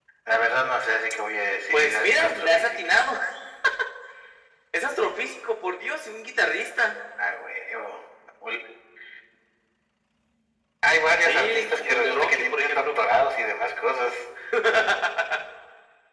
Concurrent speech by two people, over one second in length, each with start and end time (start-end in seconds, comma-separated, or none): 1.7-2.9, 11.2-13.0